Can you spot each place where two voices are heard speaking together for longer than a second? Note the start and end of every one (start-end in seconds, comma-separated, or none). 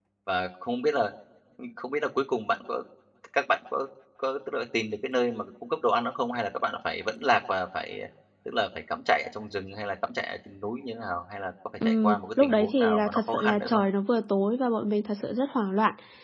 11.8-13.8